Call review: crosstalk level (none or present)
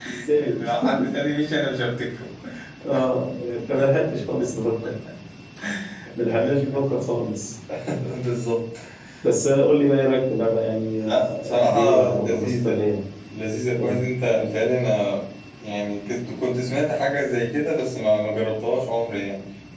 present